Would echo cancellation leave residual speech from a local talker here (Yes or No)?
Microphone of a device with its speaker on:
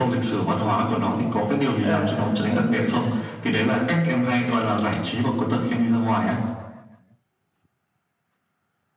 Yes